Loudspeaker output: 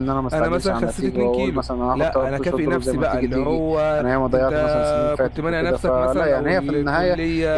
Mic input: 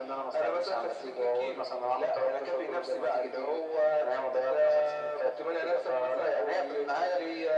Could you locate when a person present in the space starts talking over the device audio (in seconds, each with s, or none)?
none